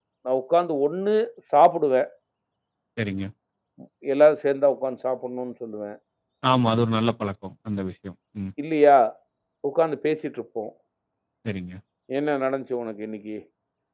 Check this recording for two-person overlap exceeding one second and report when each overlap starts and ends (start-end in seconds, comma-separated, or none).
none